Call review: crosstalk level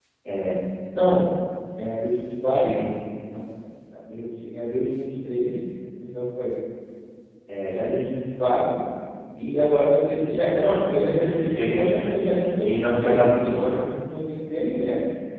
present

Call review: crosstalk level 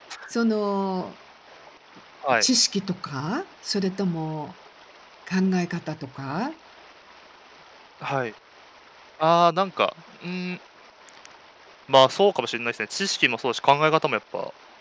none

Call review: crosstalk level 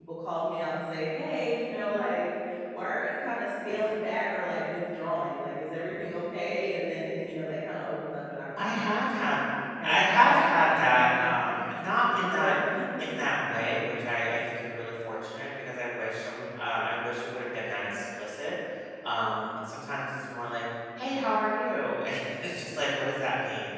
present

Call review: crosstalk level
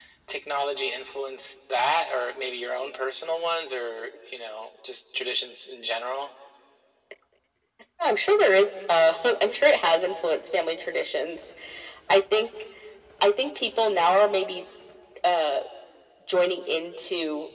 none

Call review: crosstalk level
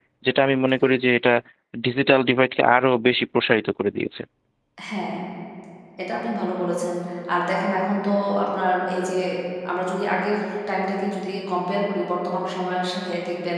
none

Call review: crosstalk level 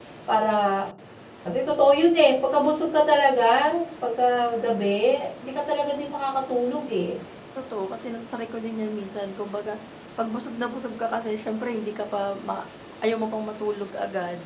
none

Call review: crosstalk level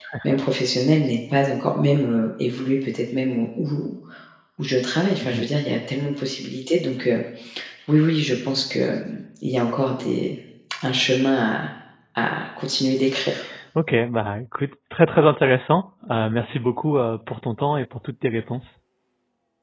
none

